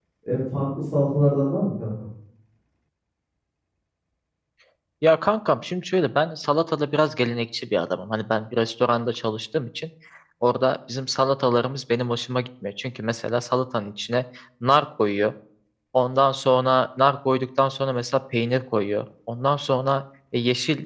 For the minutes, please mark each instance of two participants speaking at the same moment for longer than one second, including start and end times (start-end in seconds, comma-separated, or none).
none